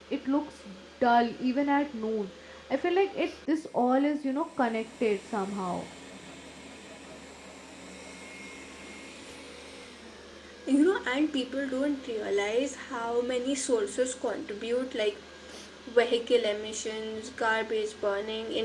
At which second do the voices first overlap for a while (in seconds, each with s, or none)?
none